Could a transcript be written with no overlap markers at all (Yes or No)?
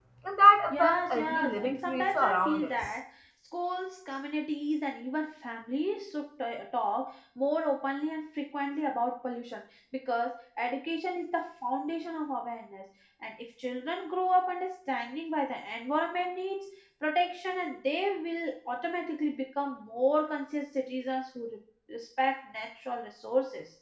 No